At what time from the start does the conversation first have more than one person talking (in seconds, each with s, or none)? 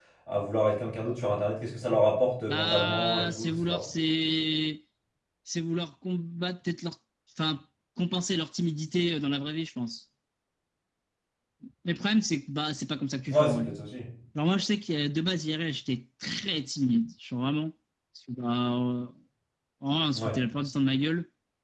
2.5 s